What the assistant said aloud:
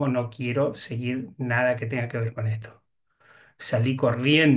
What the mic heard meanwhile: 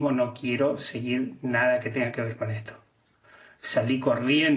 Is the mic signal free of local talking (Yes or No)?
Yes